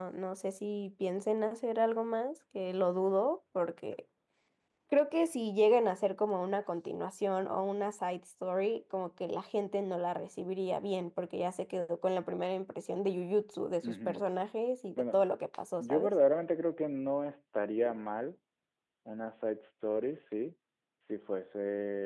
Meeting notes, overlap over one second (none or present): none